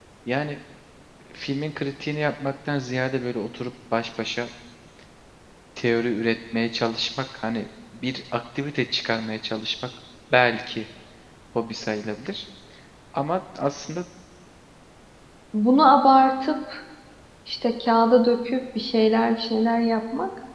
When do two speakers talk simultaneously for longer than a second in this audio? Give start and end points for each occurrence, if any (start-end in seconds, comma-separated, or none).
none